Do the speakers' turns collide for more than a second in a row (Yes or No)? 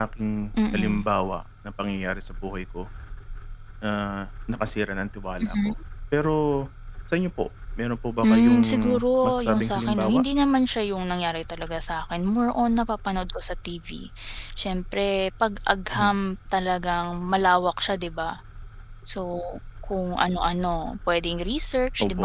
Yes